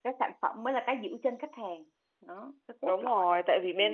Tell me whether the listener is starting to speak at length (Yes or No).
Yes